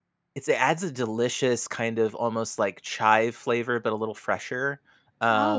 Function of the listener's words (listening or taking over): listening